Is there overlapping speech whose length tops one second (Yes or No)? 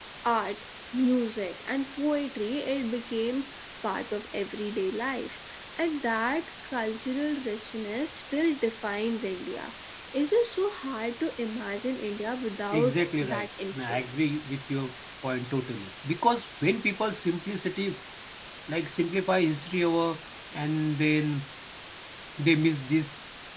Yes